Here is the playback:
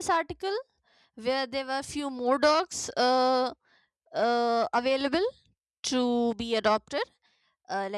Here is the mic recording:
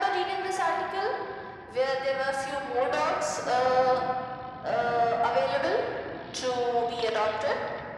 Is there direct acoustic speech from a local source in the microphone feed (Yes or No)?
No